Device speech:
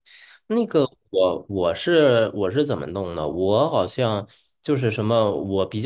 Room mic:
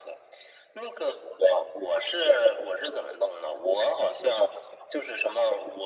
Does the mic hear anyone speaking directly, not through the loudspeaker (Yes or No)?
No